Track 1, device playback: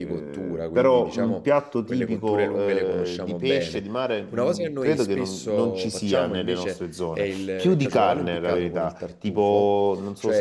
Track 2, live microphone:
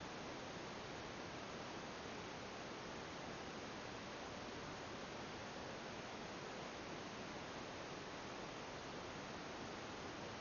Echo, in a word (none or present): none